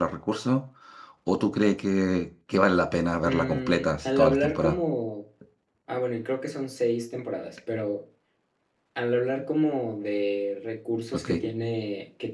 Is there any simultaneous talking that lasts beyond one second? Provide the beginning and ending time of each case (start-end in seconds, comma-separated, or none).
3.2-4.8